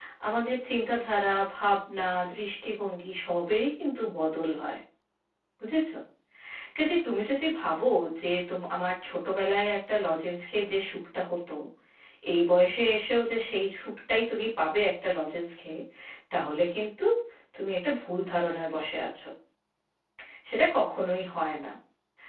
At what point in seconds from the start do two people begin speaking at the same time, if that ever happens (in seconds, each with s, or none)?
none